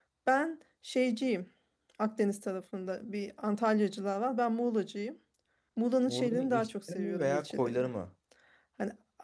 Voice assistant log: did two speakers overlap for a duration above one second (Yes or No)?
Yes